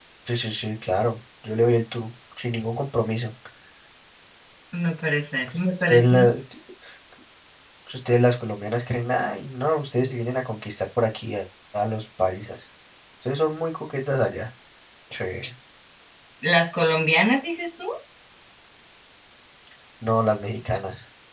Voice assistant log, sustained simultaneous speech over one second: none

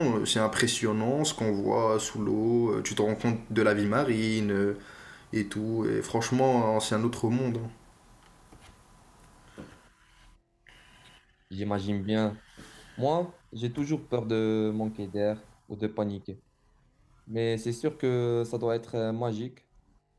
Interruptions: none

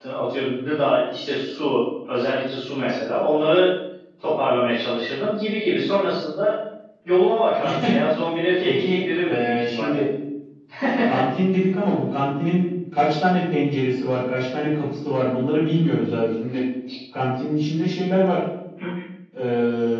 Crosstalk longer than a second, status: present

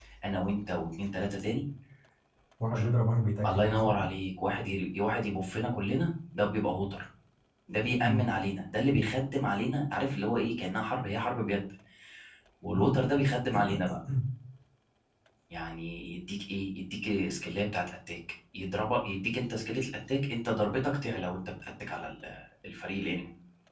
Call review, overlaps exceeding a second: none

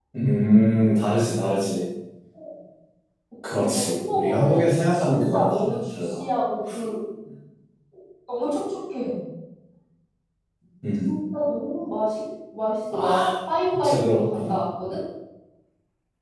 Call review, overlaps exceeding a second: present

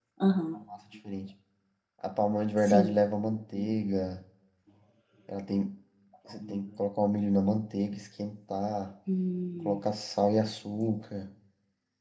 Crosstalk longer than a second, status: none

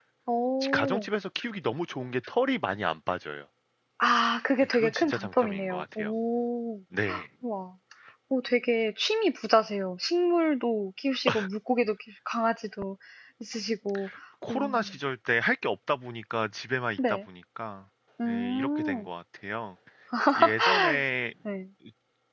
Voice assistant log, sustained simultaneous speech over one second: present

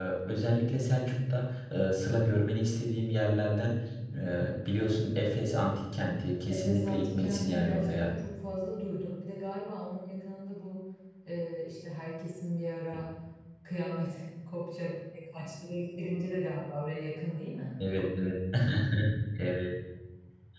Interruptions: present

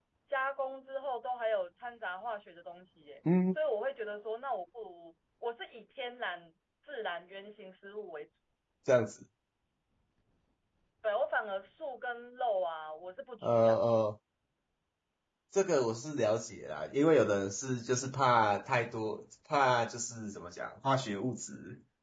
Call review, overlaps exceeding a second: none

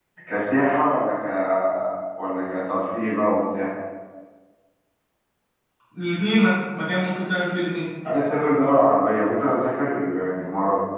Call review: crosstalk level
none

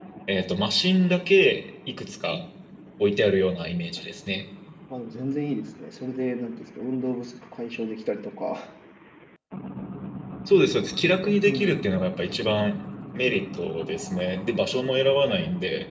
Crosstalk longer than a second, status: none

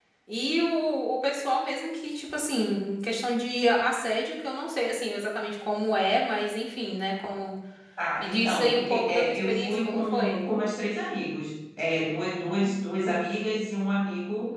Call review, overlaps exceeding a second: present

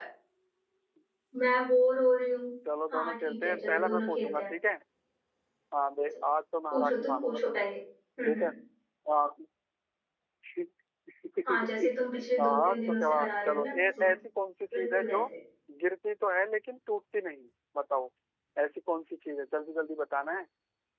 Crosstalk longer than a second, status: present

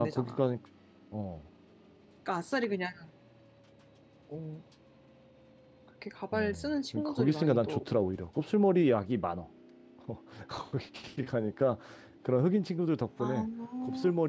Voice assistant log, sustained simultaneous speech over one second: present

